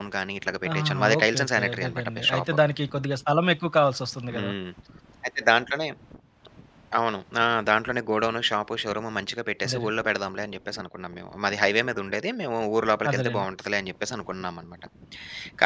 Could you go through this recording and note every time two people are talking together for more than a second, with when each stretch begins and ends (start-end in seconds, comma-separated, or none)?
0.7-2.4